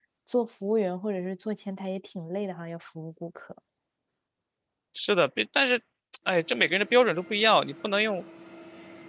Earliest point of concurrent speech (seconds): none

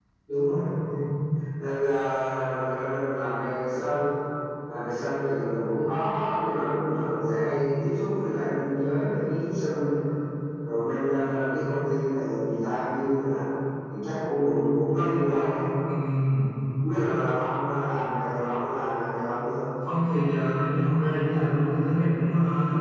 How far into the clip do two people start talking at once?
none

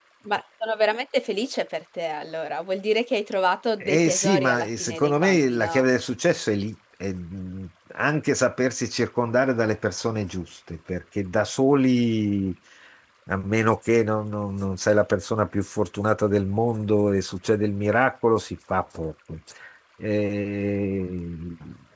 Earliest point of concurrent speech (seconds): 4 s

